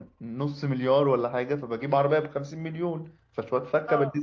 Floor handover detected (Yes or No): Yes